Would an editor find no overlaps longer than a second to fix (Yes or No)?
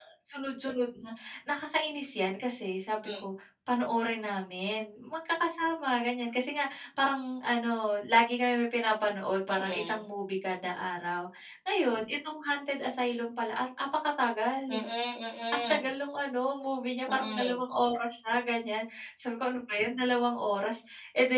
Yes